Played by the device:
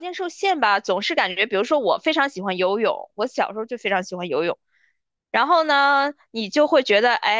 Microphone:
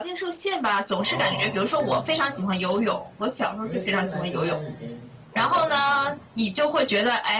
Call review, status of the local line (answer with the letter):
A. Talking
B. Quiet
A